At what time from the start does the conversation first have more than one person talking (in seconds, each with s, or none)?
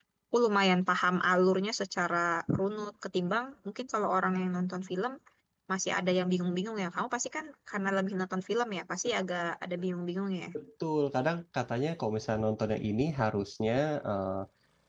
none